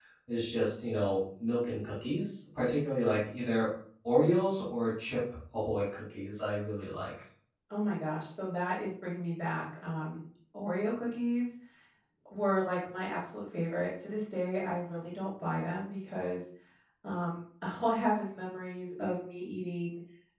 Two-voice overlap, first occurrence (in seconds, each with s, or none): none